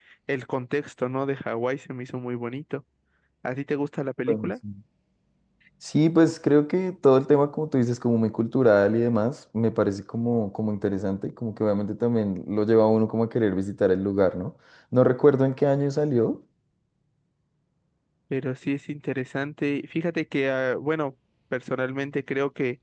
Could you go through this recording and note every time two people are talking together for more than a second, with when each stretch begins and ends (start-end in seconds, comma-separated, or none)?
none